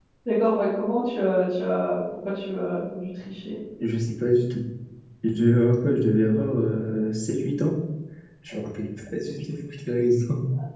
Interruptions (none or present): none